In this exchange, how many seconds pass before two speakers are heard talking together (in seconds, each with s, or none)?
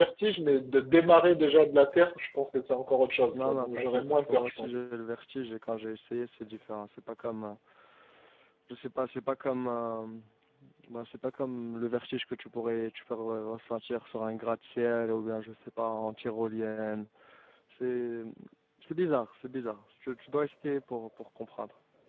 3.3 s